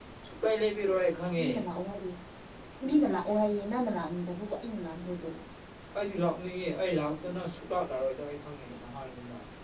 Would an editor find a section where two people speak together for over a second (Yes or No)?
No